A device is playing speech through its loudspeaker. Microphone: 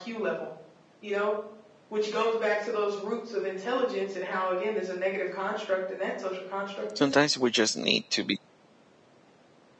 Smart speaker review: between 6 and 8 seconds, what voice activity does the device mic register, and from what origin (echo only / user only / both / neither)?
both